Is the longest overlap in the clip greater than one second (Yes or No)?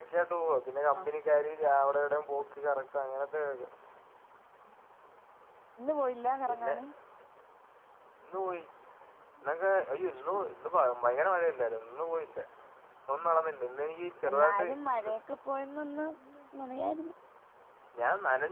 No